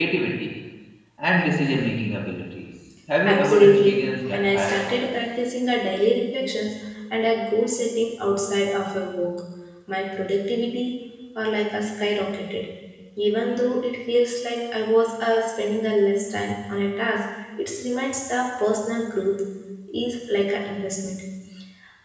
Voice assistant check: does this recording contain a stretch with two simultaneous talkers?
Yes, from 3.2 s

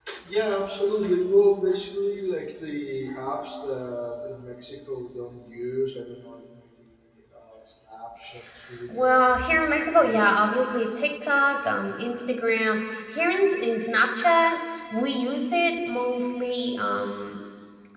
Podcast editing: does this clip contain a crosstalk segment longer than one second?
Yes, from 8.9 s

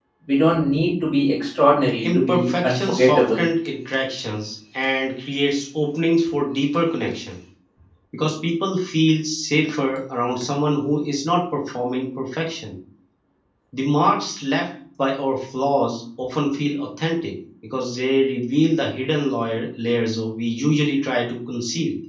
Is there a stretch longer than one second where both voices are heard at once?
Yes, from 2.0 s

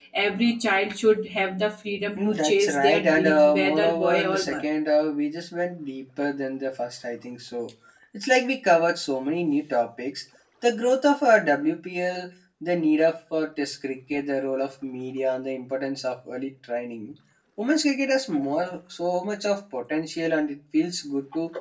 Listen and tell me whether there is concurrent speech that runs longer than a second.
Yes, from 2.2 s

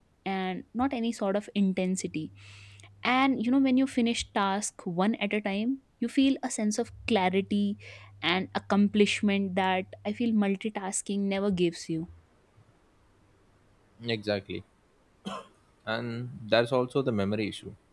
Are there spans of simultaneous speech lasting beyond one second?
No

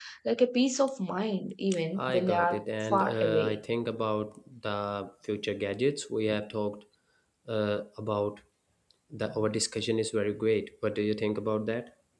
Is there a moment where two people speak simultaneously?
Yes, from 2.0 s

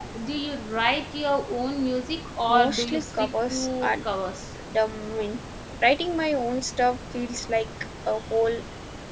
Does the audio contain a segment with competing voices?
Yes, from 2.5 s

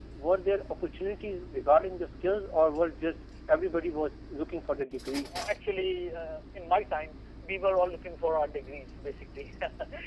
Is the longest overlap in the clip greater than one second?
No

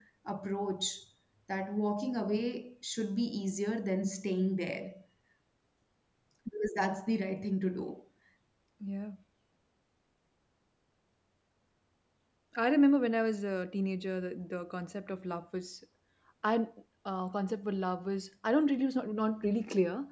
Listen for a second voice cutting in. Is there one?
No

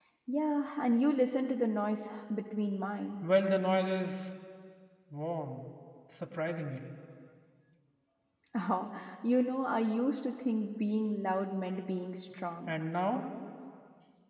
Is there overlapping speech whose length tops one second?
No

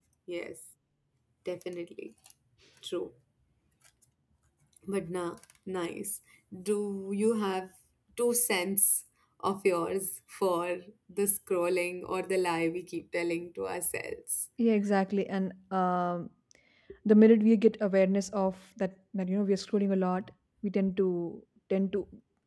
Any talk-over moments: No

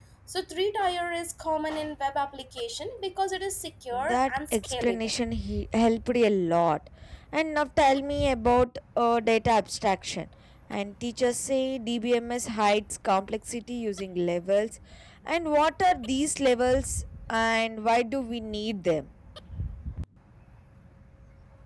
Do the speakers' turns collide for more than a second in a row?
Yes, from 3.9 s

